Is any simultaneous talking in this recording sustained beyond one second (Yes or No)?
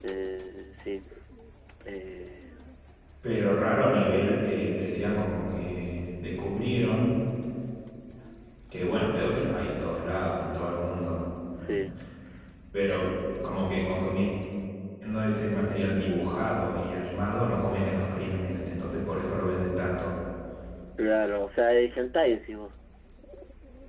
No